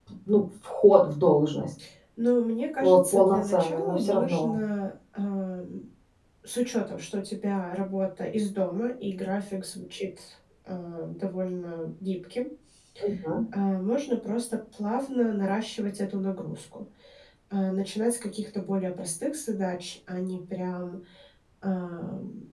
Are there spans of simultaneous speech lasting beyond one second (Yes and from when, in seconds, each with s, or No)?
Yes, from 2.8 s